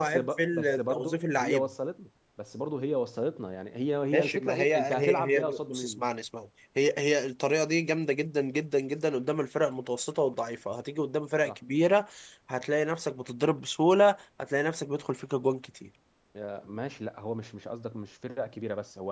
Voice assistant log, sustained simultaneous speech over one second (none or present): present